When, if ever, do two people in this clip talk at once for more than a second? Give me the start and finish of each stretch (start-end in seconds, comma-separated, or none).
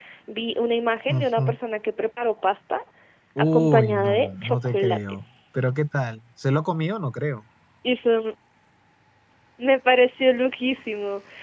3.5-5.0